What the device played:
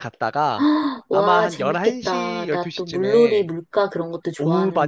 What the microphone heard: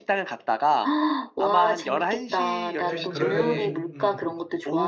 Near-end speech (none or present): present